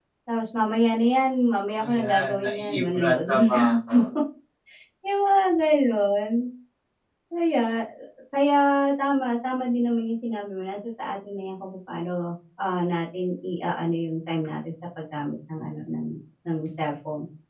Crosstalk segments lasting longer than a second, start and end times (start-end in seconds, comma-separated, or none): 1.8-4.0